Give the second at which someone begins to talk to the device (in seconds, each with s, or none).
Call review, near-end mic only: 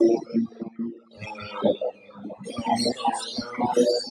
none